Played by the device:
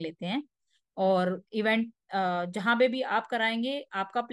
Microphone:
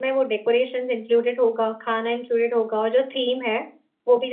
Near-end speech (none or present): present